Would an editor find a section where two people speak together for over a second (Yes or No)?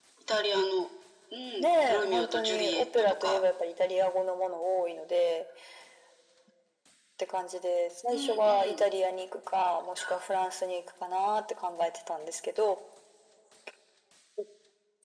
Yes